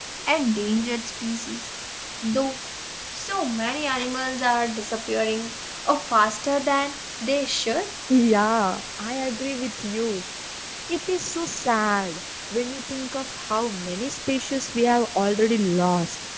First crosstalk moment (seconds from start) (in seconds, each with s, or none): none